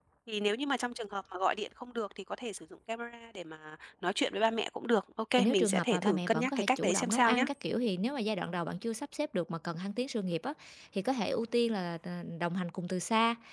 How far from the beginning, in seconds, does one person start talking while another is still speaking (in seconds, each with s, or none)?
5.4 s